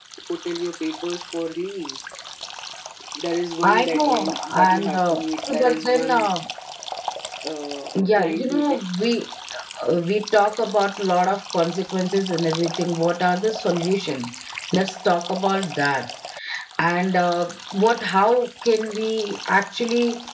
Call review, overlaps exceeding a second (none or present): present